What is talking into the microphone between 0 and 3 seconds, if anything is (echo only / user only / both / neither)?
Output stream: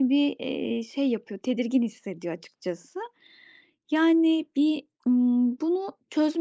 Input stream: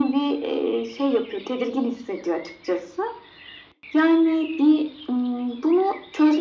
echo only